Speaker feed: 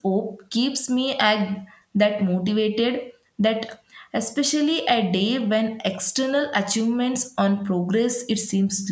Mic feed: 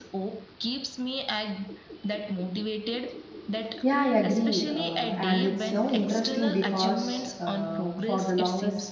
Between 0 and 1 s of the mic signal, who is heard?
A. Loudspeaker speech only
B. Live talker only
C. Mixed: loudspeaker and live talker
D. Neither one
A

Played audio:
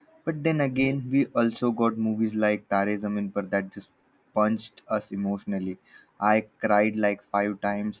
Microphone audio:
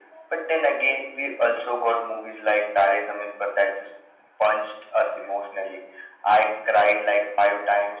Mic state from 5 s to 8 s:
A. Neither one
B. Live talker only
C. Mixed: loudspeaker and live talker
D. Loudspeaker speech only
D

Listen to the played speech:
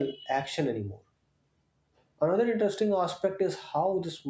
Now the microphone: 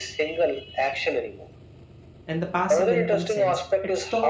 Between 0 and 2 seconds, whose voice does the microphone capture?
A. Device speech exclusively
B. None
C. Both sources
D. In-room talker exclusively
A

